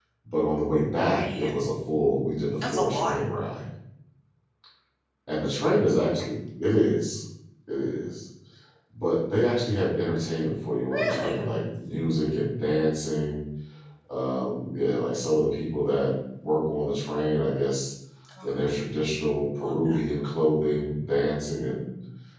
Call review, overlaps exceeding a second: none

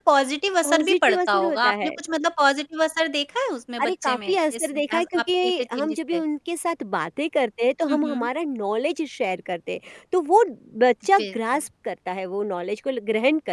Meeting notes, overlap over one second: present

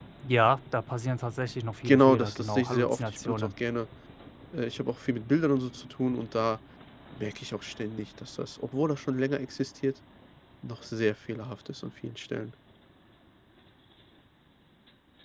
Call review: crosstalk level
present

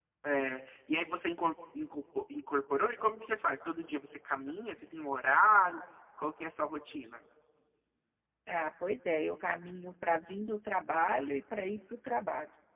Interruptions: none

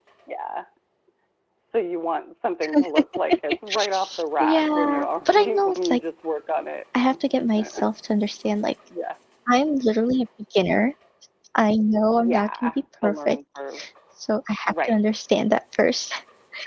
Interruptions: present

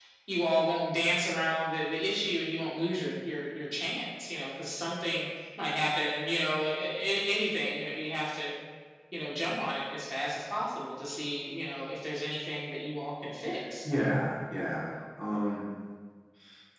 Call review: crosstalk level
none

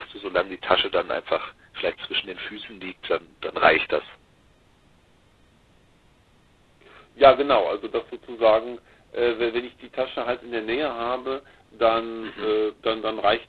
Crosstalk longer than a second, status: none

